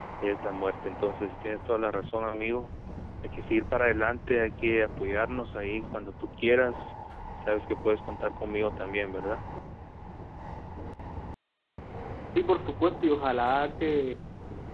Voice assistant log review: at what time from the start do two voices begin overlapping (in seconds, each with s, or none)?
none